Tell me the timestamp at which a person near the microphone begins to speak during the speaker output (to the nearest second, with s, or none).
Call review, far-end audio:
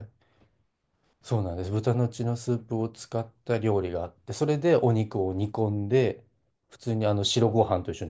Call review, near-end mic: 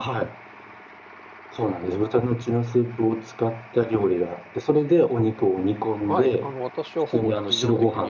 6 s